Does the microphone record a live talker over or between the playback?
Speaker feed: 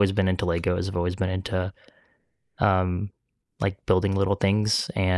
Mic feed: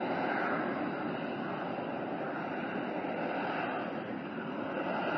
No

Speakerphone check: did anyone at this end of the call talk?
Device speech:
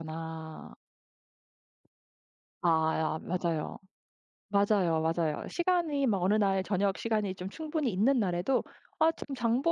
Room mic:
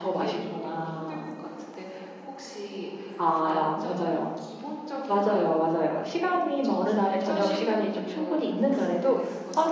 Yes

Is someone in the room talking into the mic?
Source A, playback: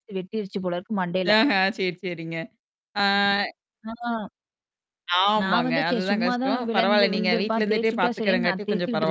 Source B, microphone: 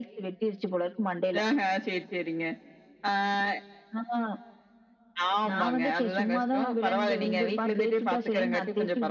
No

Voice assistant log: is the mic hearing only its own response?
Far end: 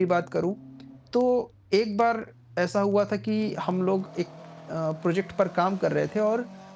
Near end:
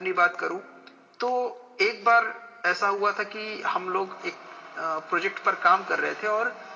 Yes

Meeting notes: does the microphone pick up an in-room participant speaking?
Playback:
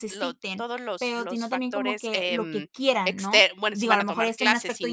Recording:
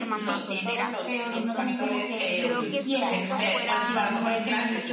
Yes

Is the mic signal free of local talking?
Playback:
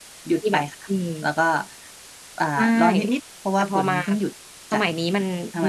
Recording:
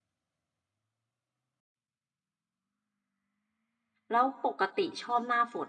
No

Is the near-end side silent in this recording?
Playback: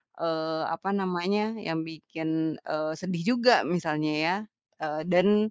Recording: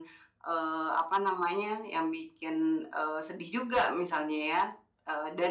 Yes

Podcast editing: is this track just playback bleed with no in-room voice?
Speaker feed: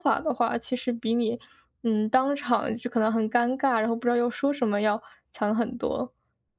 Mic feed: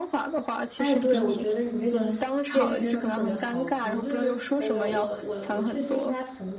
No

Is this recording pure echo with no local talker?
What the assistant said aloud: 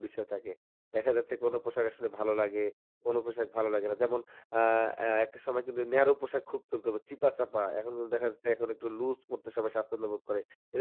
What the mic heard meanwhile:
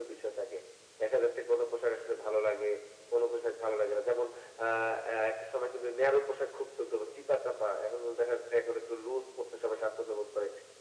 Yes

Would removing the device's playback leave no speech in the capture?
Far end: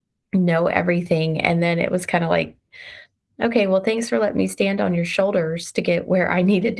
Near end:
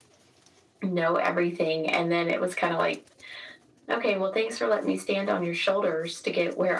Yes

